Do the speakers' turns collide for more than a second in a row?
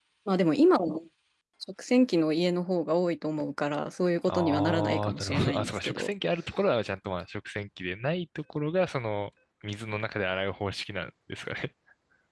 Yes, from 4.3 s

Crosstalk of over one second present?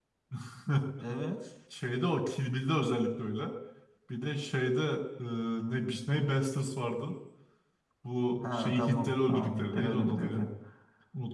Yes, from 8.5 s

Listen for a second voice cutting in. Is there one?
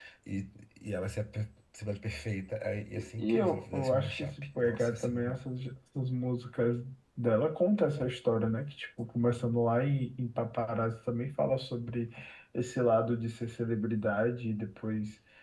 Yes, from 3.0 s

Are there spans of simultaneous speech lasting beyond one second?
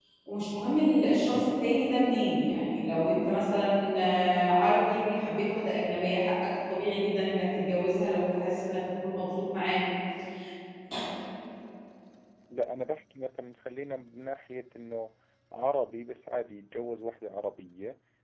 No

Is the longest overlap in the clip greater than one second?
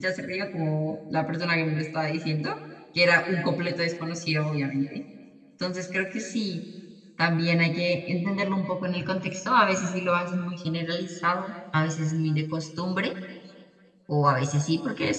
No

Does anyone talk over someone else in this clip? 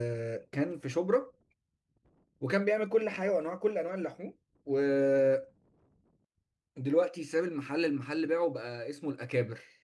No

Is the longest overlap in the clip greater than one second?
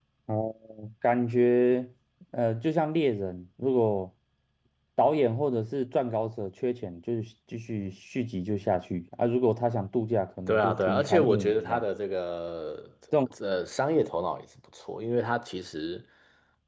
Yes, from 10.5 s

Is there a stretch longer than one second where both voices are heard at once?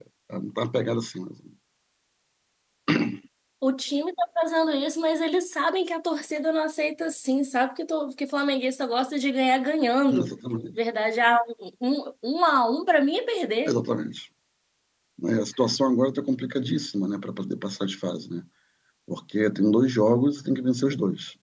No

